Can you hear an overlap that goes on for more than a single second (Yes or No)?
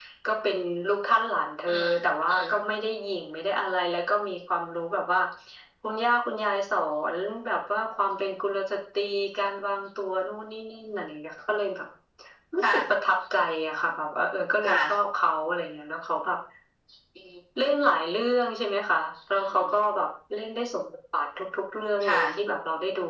No